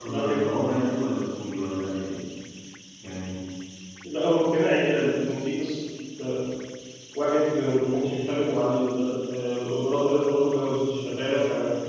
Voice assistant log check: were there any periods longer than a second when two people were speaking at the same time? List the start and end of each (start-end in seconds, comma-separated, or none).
none